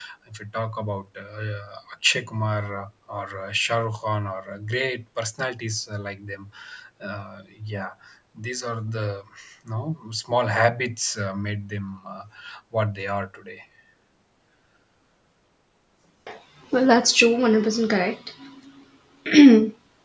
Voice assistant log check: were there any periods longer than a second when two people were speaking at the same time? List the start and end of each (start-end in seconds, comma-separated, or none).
none